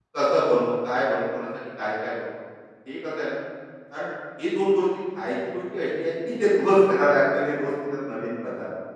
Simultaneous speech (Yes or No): No